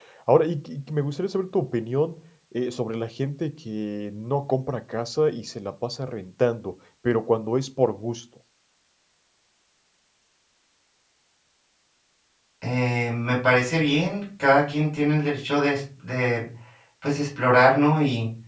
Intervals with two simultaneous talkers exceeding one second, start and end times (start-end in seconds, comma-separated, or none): none